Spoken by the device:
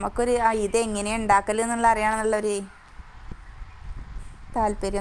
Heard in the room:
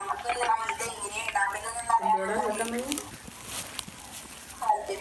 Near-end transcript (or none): എന്ത് വാടാ കേൾക്കാം വയ്യ.